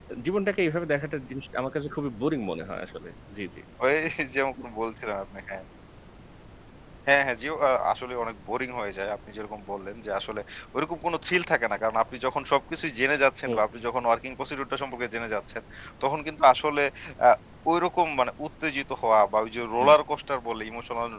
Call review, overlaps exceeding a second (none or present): none